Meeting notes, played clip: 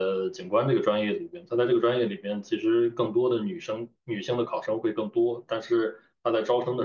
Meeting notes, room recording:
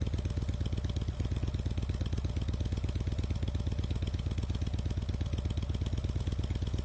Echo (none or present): none